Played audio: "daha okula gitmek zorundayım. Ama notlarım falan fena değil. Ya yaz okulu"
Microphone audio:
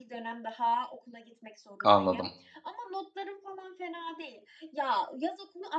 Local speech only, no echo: anladım.

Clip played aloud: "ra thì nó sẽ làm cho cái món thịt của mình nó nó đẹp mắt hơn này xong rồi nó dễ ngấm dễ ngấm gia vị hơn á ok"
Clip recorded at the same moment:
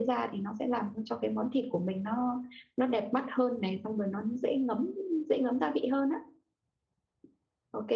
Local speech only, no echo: none

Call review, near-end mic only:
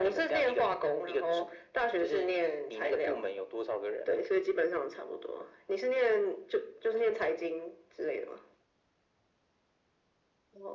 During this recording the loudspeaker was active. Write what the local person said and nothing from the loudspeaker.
none

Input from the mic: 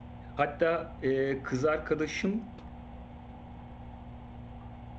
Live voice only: Hatta e, kız arkadaşım

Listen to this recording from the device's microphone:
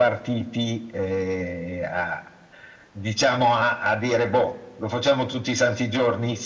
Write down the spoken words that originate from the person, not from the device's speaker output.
none

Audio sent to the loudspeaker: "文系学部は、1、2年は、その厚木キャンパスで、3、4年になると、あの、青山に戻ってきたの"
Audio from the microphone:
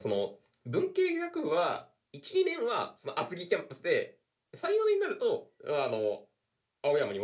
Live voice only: none

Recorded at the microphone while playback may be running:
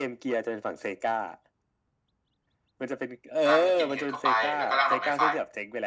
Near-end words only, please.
ร่างที่กินเห็ดเข้าไปแล้วก็ร่างดอกไม้ไฟ

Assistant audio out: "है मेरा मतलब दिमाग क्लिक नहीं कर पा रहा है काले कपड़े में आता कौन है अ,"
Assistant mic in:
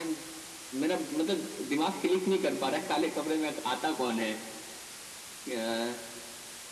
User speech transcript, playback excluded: none

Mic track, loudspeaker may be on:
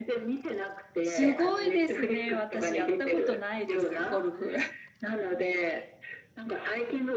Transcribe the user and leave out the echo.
すごいですね。私やったことないです、ゴルフ。

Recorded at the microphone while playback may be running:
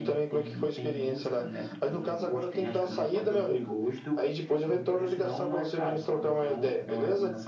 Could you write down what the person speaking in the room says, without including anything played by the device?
none

